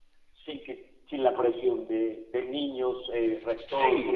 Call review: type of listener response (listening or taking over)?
taking over